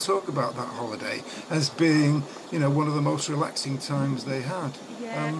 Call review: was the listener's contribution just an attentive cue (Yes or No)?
No